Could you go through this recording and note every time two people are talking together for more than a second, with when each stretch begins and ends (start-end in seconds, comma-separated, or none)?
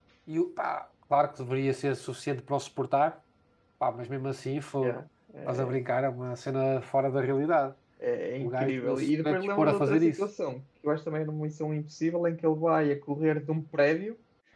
8.4-10.2